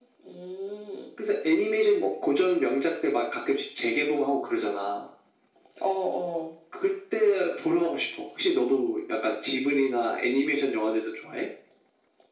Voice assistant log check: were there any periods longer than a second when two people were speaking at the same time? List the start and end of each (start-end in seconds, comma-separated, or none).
none